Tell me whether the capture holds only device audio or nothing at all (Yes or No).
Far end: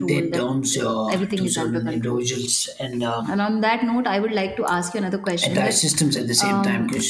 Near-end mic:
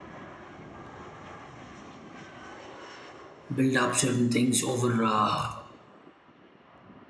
No